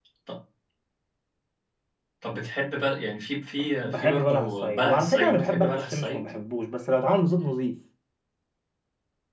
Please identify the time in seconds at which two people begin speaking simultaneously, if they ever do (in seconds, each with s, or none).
3.8 s